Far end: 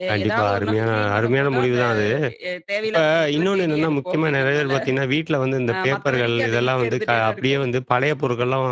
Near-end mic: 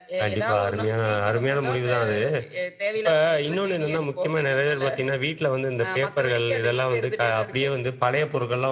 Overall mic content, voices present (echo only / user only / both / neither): echo only